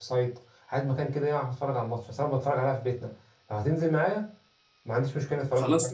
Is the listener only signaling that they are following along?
No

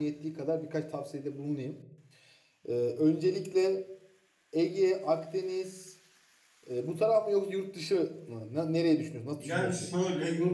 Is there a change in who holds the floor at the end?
Yes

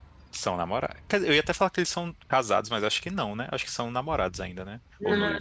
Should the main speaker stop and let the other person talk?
Yes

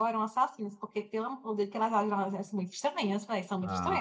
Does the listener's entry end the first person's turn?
Yes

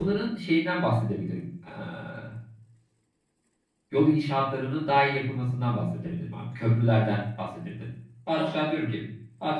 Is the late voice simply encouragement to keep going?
Yes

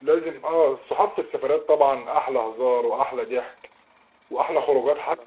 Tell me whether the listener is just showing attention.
Yes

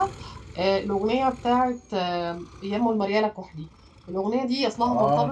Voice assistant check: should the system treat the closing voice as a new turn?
No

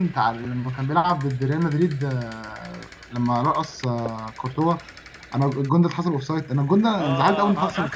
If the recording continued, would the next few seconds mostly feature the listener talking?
Yes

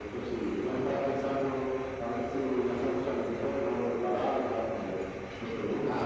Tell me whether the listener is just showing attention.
No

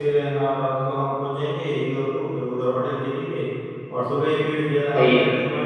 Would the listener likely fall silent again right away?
Yes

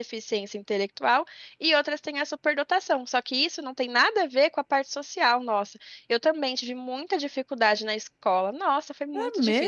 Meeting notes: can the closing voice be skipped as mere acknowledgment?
No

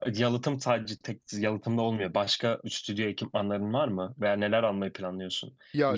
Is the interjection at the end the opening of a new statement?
No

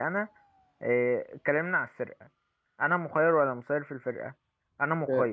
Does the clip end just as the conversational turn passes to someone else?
Yes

